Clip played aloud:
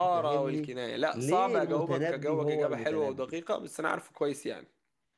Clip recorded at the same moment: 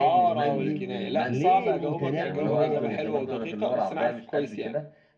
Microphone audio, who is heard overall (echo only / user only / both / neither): both